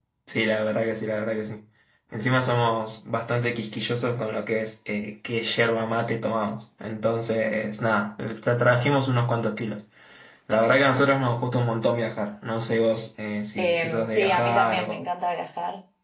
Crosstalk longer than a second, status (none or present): present